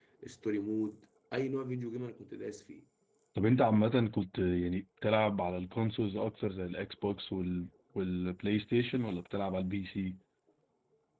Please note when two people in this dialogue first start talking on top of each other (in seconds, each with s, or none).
none